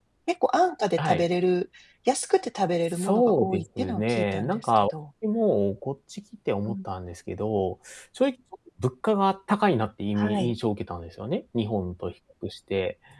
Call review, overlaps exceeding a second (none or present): present